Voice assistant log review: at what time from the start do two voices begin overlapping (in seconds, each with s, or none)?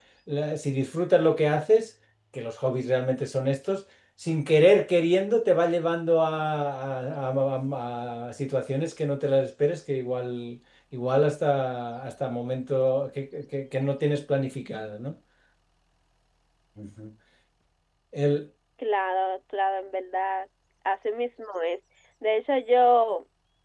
none